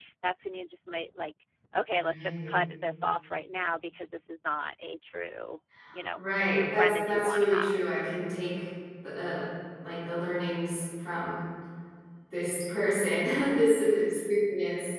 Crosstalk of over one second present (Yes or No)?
Yes